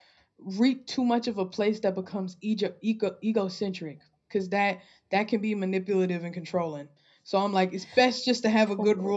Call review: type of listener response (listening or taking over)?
listening